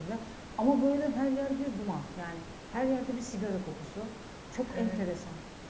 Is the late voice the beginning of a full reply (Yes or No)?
No